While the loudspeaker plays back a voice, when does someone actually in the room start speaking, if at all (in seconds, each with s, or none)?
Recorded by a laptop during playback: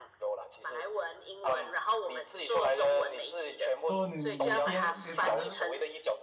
3.9 s